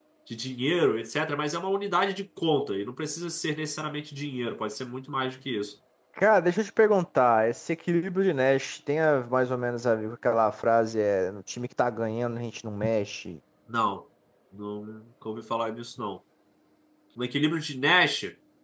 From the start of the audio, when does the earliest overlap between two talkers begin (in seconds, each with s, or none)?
none